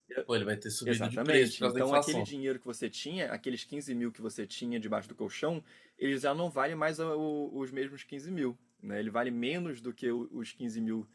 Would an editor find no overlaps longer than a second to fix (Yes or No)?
No